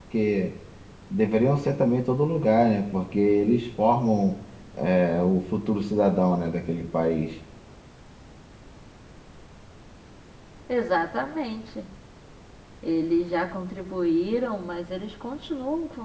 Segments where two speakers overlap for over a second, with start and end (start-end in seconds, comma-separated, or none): none